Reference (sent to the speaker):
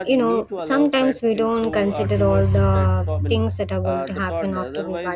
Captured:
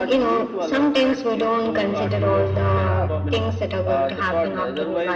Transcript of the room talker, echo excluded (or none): yeah